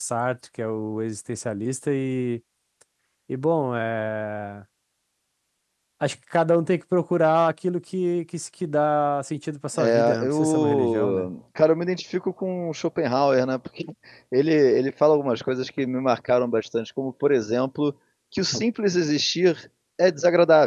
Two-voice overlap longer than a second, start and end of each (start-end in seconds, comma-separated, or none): 9.8-11.3